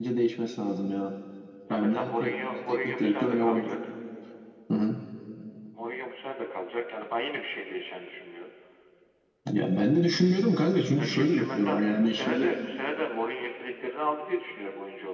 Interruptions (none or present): present